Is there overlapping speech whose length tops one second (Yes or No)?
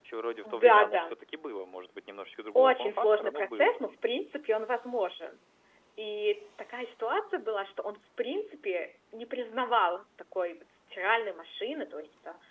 Yes